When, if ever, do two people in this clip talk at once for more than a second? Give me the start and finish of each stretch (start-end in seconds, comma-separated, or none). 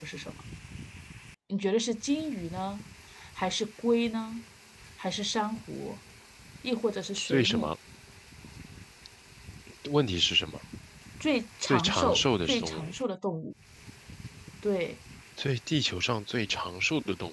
11.7-12.9